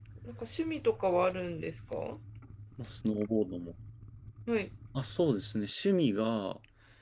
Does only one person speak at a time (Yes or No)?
Yes